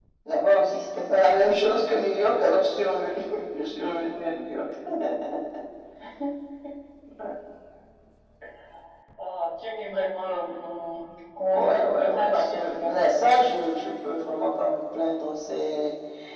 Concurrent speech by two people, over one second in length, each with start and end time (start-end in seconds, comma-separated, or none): 11.5-13.0